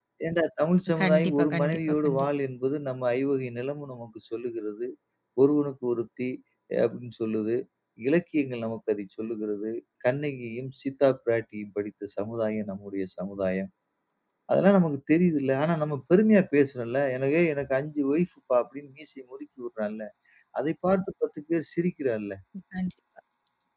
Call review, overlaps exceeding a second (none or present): present